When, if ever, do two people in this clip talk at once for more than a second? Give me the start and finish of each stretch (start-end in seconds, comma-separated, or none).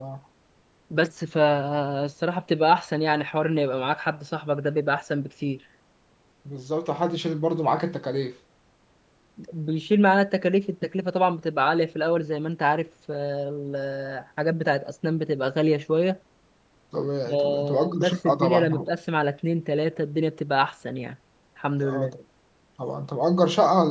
17.3-18.7